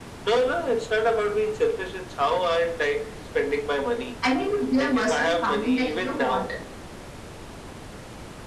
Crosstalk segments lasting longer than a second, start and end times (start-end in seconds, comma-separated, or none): 4.8-6.4